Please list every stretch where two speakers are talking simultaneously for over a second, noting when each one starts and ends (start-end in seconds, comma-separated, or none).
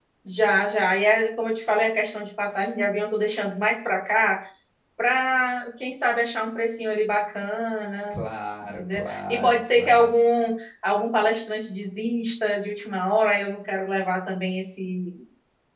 8.8-10.1